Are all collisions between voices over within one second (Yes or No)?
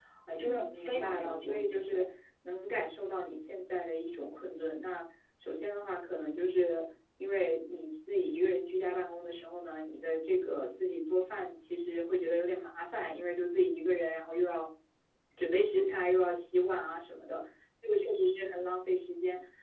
No